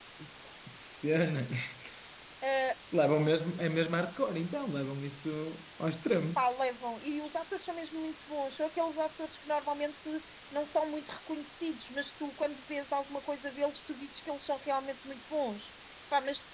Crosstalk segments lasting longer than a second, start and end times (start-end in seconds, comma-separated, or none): none